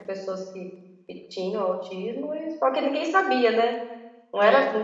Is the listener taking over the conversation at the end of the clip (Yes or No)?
No